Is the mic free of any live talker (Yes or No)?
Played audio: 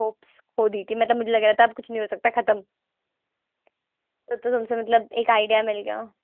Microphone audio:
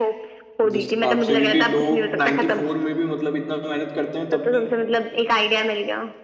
No